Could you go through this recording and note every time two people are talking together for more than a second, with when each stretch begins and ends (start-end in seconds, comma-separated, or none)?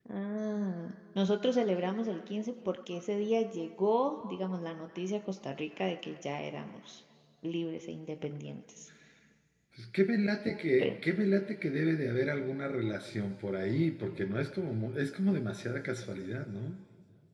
none